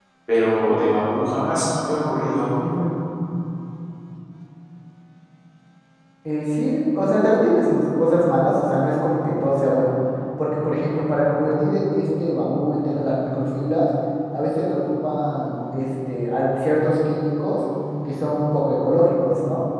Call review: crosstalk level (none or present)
none